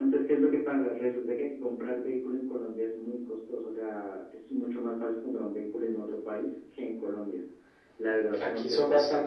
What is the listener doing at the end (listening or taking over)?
taking over